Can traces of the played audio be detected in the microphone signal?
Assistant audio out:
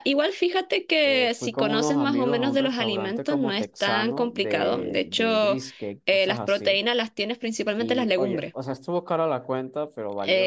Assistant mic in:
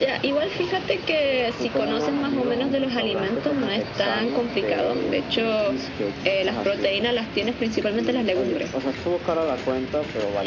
Yes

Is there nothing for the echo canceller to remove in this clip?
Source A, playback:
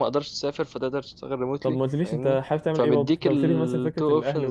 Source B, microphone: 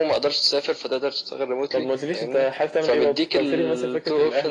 No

